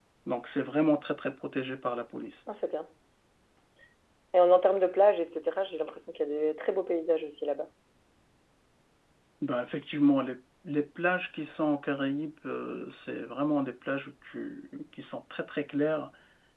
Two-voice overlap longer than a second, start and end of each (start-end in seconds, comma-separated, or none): none